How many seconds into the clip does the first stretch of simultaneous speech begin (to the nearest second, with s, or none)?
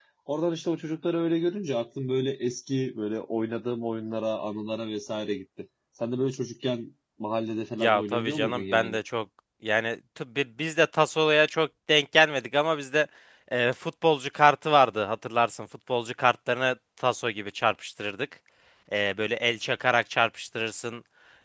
8 s